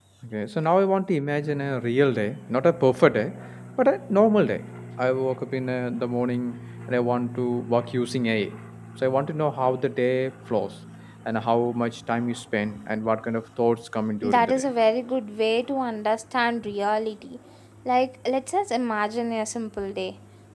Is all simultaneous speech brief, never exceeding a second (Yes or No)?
Yes